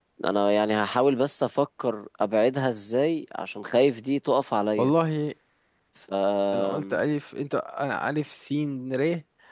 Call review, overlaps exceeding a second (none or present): none